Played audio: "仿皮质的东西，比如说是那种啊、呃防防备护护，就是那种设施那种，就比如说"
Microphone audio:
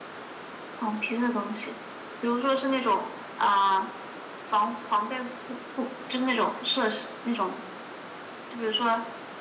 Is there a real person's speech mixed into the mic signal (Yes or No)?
No